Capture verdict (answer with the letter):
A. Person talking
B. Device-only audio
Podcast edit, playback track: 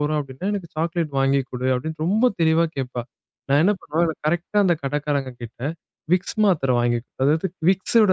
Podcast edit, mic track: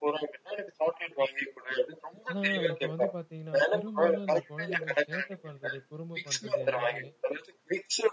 A